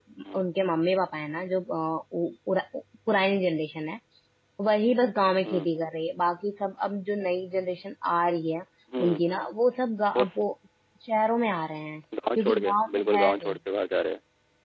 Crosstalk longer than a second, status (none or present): present